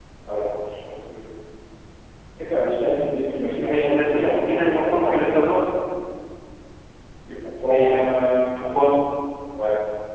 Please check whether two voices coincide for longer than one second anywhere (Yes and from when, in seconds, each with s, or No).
Yes, from 3.6 s